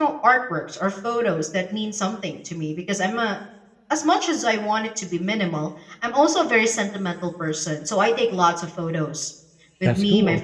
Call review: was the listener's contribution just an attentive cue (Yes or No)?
Yes